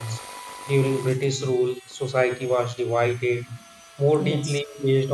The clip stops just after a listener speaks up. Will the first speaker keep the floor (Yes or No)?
Yes